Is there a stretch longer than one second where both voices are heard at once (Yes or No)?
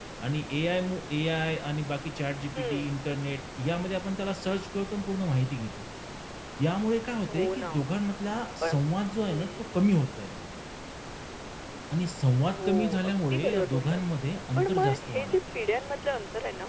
Yes